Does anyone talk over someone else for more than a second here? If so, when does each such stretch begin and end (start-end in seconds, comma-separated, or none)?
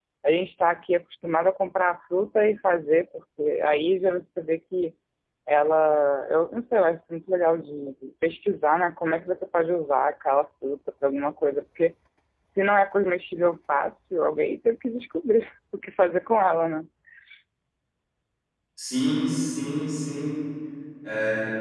none